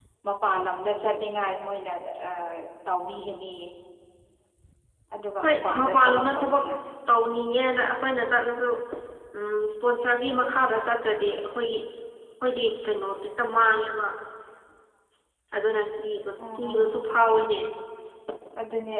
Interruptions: present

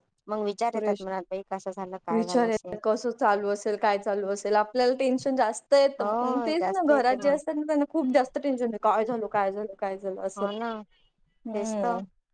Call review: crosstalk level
present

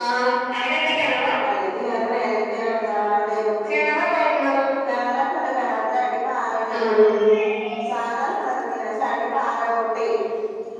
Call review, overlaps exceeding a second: none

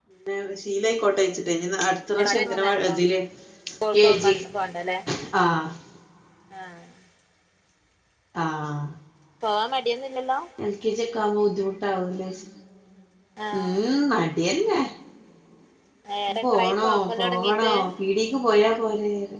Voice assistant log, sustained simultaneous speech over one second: present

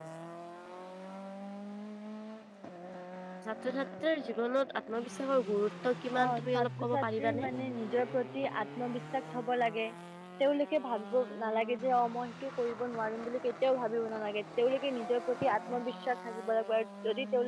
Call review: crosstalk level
present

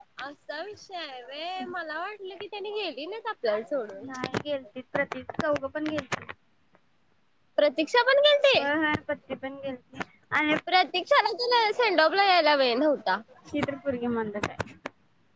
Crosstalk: none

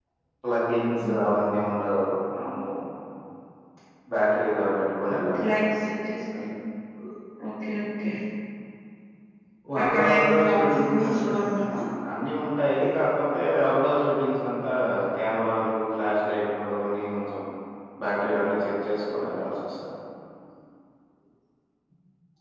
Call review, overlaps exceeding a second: present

